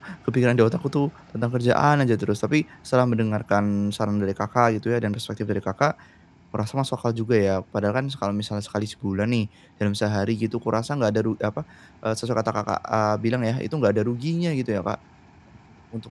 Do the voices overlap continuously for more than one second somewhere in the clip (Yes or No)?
No